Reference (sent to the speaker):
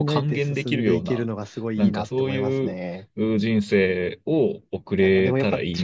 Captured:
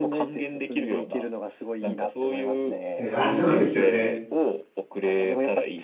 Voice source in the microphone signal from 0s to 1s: echo only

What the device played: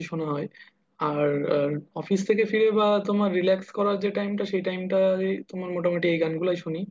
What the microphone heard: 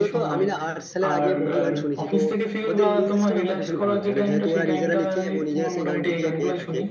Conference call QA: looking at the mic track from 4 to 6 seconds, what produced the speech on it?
both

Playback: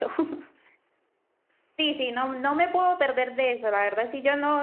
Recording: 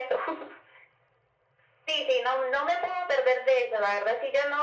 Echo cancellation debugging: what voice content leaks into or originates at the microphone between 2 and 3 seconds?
echo only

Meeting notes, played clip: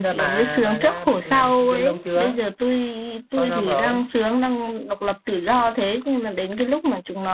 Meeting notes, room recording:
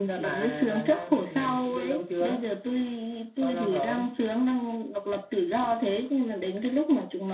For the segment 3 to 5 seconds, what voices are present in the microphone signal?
echo only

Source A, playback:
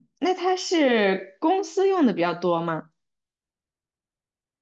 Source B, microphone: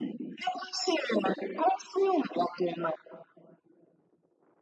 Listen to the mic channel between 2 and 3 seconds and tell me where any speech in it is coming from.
echo only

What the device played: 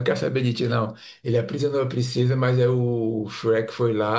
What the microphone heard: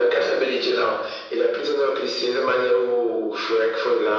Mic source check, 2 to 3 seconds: echo only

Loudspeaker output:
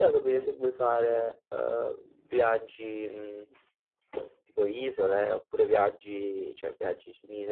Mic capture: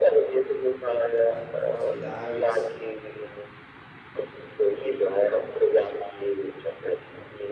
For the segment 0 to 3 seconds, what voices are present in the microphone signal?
both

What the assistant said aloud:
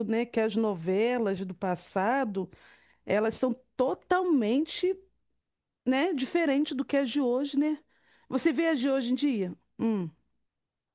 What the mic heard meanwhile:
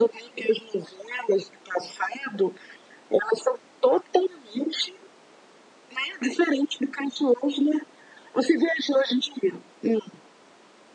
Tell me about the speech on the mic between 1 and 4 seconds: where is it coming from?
echo only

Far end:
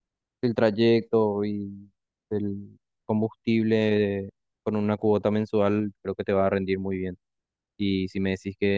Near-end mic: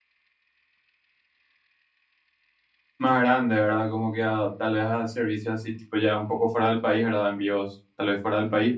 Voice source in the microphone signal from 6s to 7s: user only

